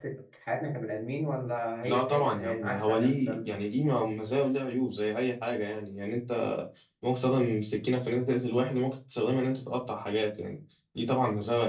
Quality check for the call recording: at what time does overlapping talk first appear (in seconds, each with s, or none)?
1.8 s